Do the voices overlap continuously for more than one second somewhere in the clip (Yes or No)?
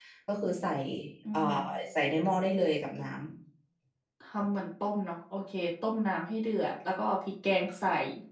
No